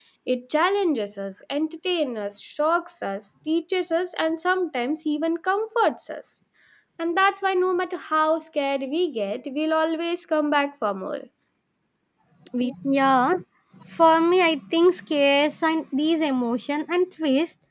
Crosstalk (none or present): none